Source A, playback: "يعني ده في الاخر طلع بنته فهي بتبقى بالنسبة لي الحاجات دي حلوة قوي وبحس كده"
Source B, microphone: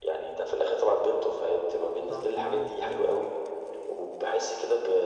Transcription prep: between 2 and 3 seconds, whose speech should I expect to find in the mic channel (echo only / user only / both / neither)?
both